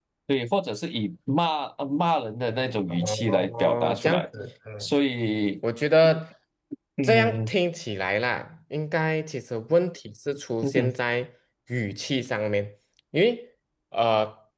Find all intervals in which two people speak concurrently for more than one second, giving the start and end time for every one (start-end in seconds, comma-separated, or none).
2.9-4.3